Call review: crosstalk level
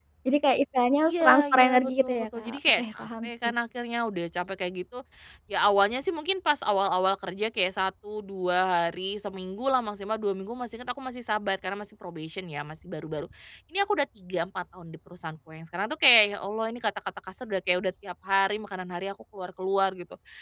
present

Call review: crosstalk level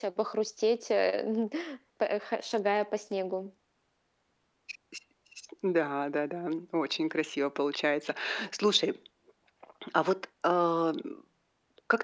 none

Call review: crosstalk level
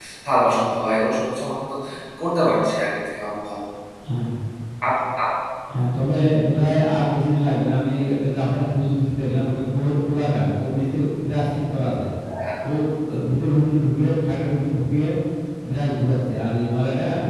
none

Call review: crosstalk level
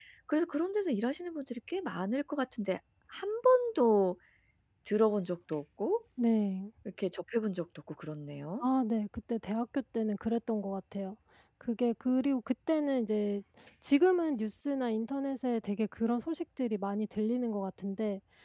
none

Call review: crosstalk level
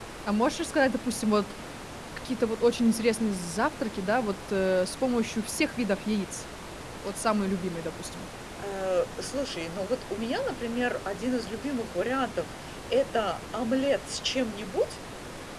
none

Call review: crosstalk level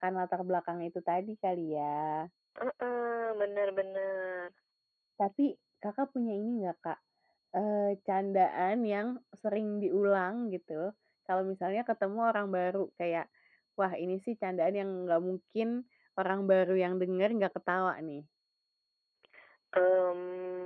none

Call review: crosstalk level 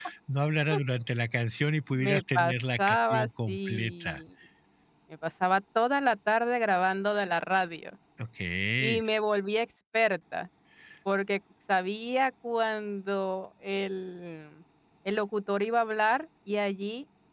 present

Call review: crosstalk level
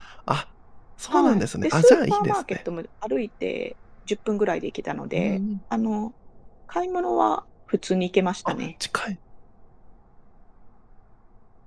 present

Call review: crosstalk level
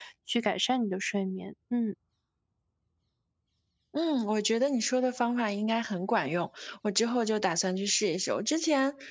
none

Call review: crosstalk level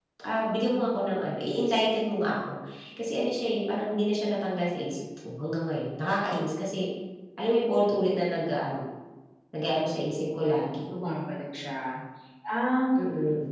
none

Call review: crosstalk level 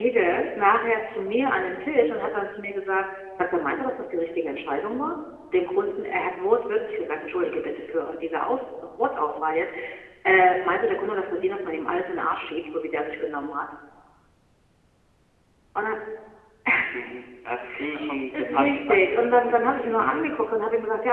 present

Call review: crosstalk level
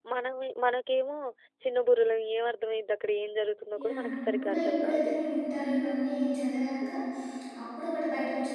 present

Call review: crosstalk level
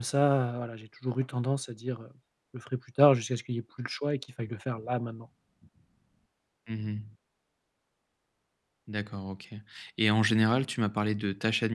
none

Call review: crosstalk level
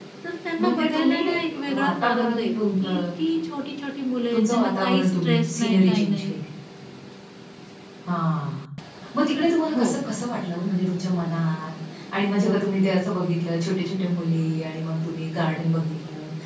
present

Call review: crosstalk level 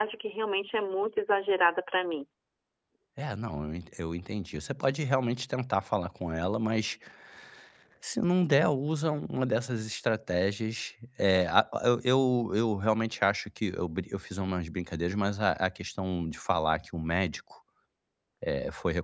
none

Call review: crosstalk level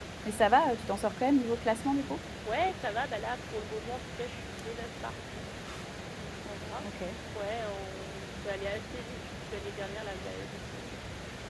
none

